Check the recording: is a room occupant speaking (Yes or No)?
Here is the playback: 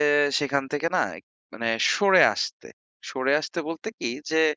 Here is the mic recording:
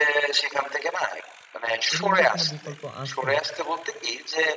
Yes